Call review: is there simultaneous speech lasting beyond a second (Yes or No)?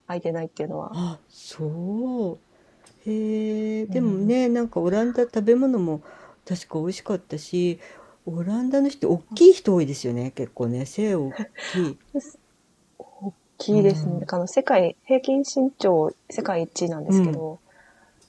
No